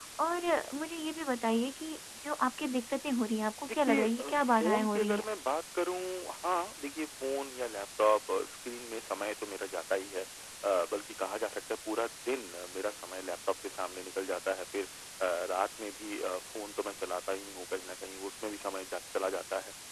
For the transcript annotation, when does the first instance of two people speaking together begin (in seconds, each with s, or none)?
3.7 s